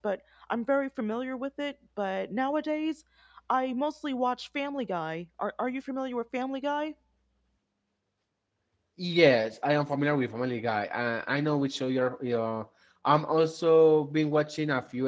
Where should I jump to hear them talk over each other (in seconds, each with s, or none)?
none